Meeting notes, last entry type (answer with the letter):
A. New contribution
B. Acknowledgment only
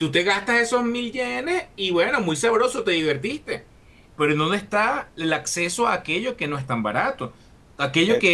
B